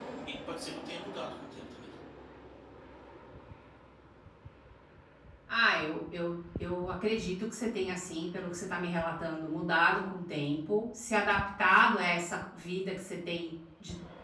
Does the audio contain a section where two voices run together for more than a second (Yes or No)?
No